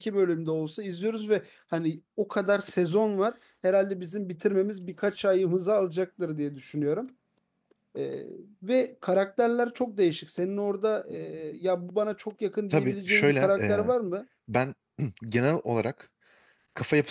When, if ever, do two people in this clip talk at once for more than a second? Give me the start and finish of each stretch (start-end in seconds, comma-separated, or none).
12.7-13.9